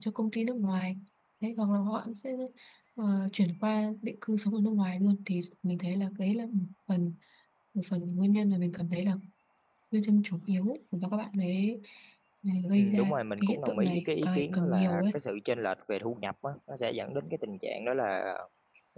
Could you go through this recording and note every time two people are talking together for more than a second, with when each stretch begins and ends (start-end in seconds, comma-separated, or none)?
12.8-15.0